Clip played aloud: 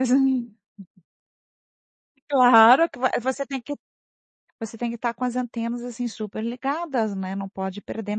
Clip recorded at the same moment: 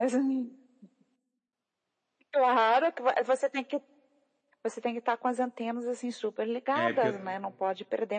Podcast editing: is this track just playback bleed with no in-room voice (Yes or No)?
No